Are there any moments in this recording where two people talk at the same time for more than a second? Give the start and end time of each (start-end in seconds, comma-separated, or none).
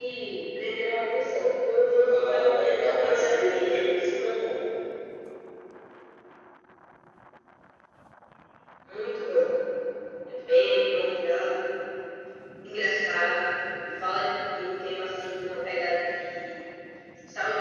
2.3-3.8